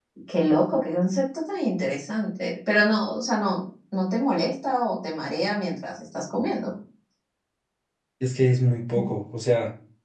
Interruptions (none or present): none